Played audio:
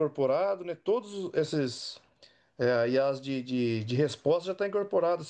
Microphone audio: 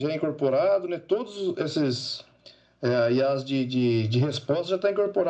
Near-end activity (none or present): none